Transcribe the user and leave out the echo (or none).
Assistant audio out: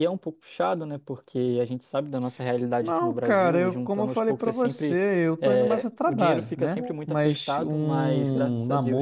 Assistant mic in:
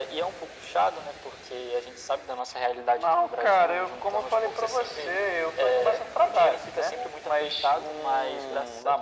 none